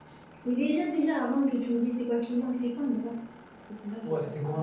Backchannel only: No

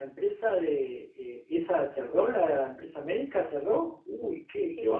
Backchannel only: No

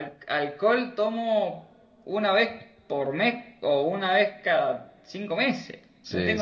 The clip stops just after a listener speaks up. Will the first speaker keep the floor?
Yes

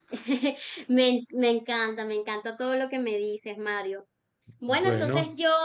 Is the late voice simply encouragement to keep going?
Yes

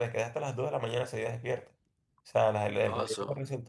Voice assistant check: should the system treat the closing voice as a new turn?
No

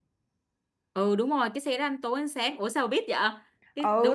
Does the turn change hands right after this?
Yes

